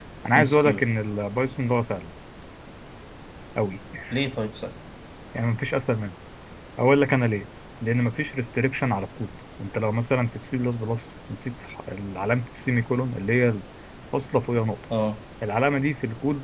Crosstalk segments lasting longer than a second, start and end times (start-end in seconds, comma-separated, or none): none